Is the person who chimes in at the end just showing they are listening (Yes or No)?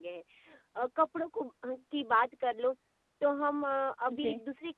Yes